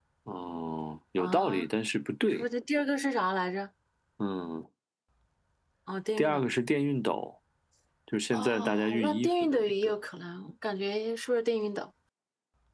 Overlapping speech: Yes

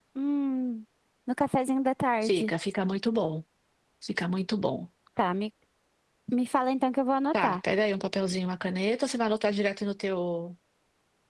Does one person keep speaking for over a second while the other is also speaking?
No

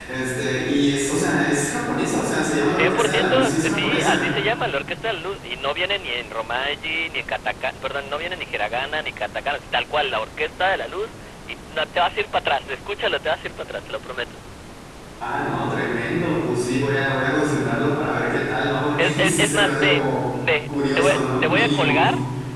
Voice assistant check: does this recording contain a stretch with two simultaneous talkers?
Yes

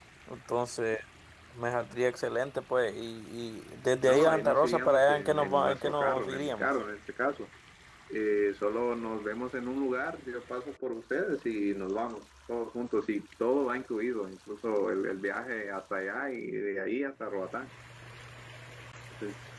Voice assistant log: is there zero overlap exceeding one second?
No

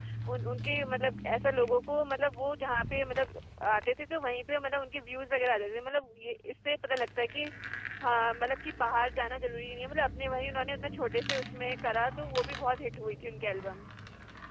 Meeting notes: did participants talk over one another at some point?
No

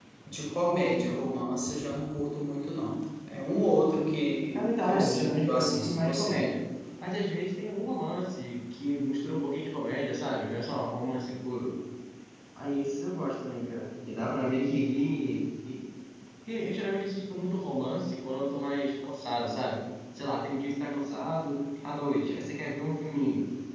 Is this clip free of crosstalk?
No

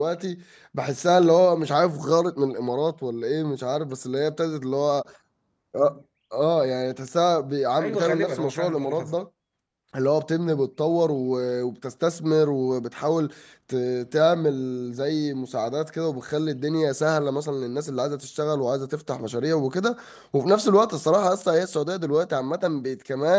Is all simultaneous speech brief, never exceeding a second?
No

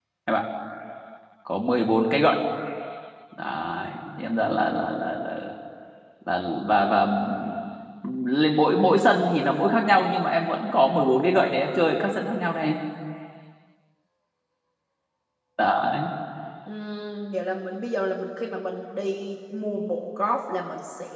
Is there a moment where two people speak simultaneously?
No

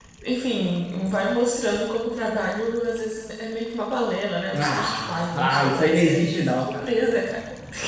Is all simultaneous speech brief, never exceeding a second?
No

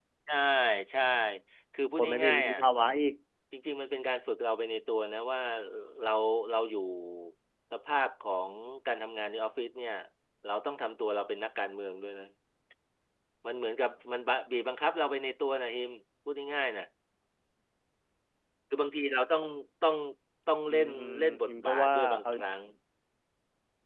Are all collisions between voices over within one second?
No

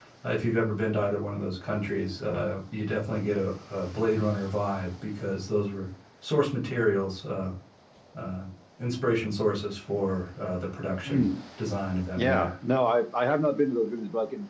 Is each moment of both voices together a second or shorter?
Yes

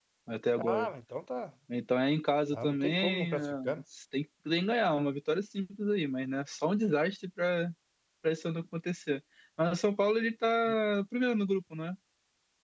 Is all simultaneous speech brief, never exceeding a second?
No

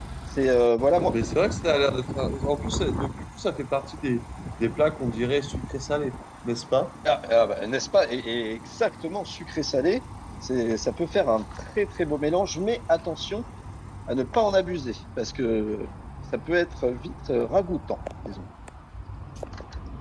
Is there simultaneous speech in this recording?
No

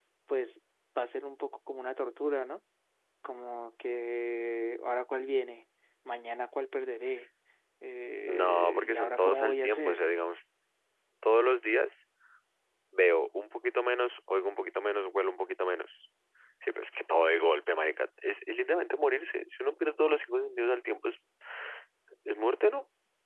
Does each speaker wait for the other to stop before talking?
No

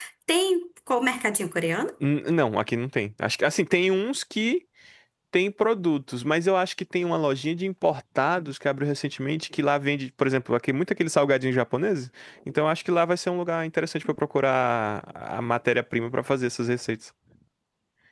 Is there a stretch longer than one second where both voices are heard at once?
No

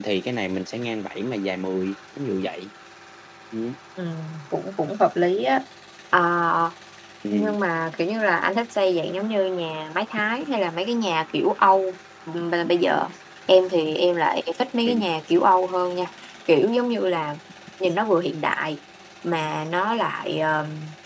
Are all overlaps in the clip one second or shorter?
Yes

